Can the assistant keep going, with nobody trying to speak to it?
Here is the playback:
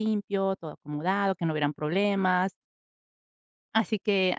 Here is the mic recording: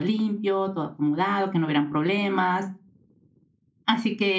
Yes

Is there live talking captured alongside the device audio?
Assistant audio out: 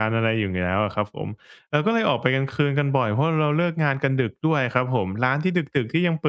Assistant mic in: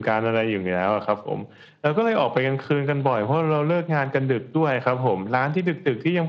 No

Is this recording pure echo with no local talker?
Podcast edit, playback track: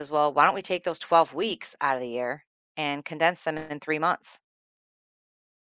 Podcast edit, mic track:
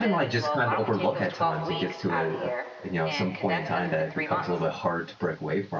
No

